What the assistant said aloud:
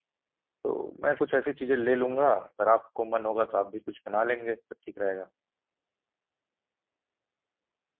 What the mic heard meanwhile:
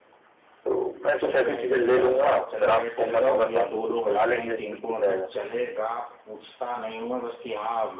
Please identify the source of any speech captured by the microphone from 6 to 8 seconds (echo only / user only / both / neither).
user only